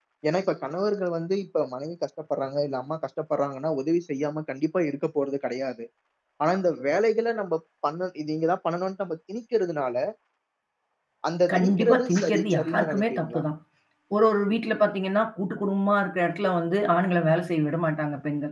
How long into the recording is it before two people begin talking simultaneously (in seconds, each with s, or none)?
11.5 s